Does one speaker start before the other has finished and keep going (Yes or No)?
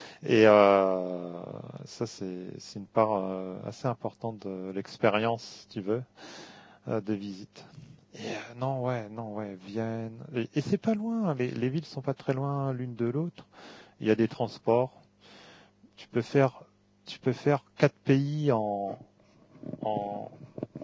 No